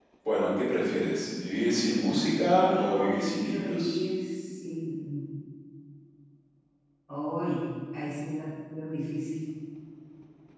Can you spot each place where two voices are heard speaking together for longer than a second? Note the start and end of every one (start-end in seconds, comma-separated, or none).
2.6-4.0